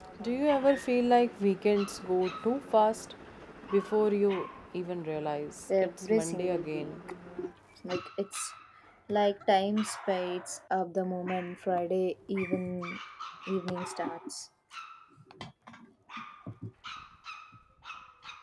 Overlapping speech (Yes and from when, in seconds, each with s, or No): Yes, from 5.7 s